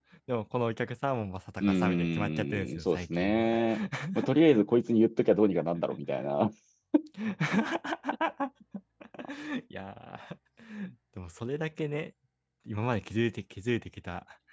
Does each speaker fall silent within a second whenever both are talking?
No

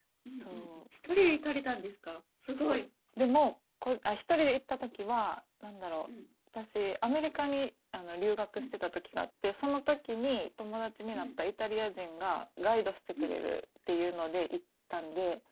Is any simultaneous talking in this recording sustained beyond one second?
No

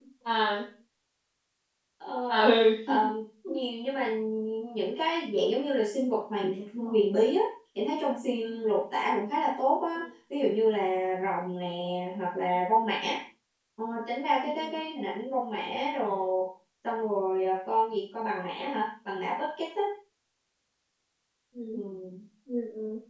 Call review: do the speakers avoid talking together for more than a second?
Yes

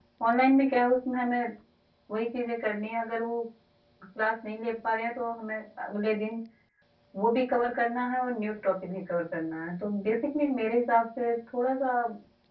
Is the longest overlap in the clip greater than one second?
No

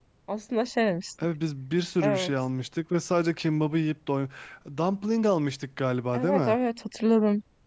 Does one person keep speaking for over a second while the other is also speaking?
No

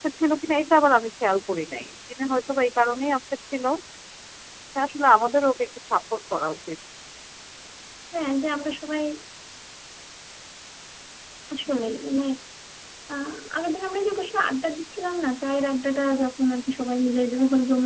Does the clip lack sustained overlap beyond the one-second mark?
Yes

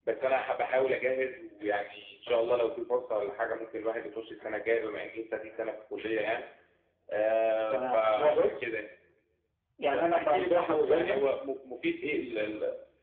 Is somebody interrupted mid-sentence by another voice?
Yes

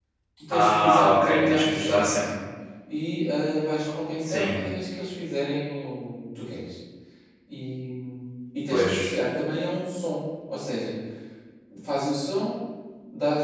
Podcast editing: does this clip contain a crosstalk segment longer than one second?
Yes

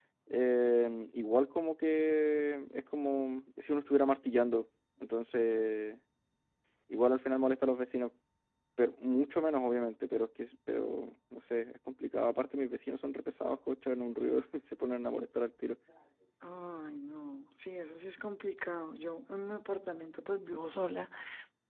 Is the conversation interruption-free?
Yes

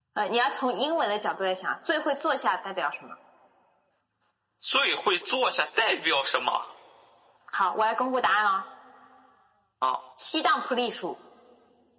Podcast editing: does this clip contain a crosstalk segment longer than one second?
No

